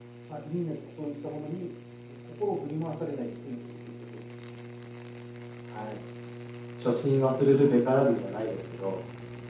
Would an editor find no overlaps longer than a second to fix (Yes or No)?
Yes